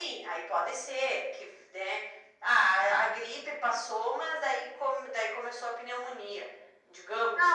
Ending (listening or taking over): taking over